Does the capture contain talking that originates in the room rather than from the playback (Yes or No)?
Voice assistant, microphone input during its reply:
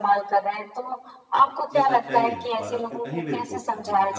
Yes